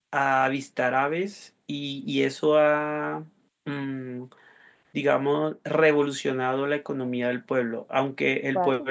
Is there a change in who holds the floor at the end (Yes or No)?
No